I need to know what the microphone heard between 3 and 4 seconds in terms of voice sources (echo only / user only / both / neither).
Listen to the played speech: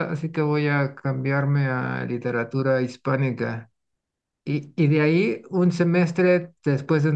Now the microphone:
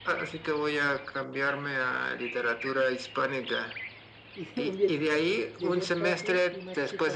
echo only